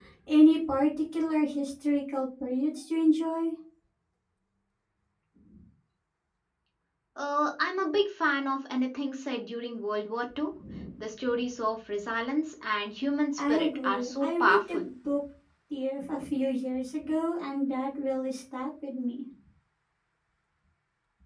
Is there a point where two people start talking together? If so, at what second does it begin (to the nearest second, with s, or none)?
13 s